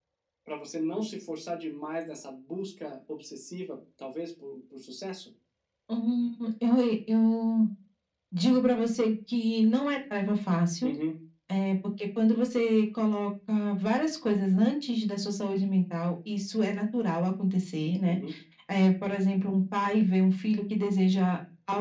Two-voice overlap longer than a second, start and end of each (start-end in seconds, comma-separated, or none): none